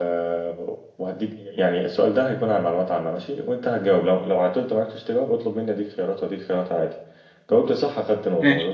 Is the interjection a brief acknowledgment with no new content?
Yes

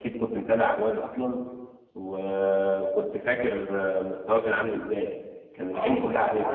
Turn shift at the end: Yes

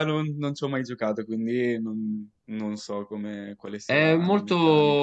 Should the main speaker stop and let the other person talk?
Yes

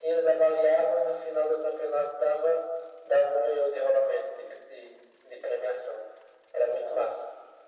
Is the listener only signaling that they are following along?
No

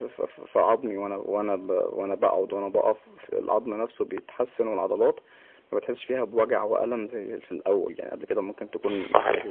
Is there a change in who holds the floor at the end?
No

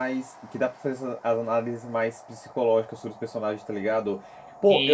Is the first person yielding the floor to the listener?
No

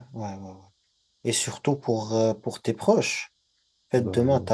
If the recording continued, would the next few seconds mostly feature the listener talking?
No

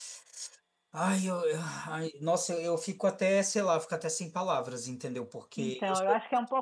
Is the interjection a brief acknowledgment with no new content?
No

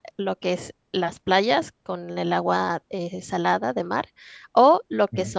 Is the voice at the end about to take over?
No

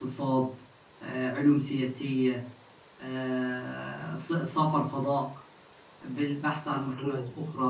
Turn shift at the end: No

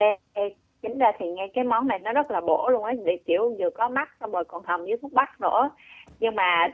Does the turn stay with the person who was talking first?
Yes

